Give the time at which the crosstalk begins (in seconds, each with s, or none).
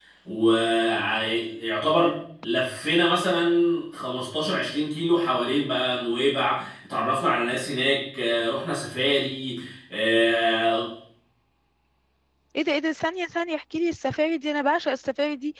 none